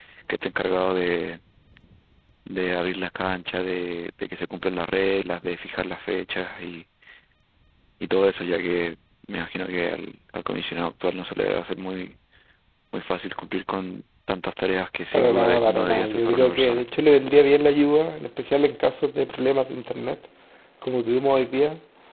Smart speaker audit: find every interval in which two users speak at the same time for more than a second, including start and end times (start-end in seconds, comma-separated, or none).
15.1-16.8